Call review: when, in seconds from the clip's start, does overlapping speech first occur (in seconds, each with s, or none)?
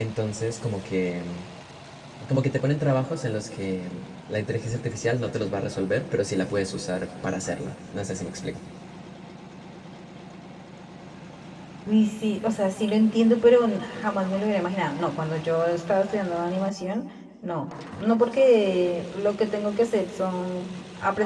none